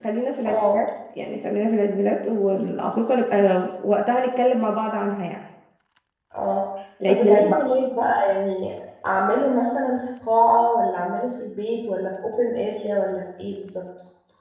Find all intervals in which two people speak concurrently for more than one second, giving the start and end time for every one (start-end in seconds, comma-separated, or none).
none